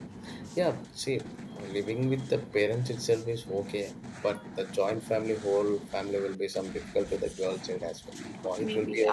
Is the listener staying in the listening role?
No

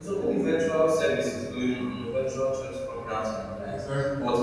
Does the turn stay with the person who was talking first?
Yes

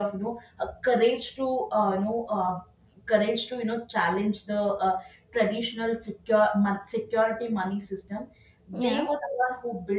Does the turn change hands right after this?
No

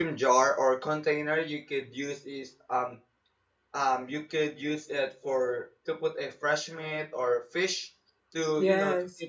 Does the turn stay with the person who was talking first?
Yes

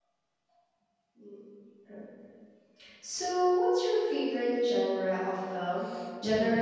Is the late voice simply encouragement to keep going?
No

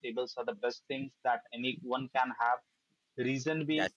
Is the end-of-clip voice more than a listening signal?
No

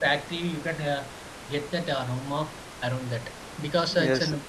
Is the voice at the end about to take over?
Yes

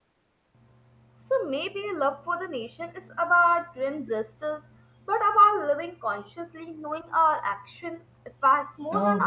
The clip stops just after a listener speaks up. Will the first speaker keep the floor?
No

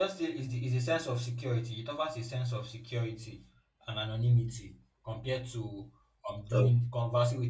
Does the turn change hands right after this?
No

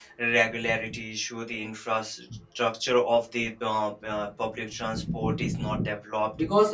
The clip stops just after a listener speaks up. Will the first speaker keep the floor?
No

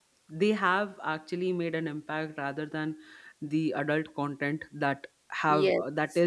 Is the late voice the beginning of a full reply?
No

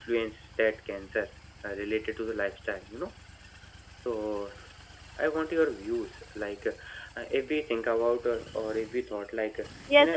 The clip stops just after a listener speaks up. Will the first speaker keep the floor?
No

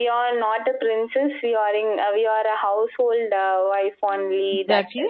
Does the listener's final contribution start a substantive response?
Yes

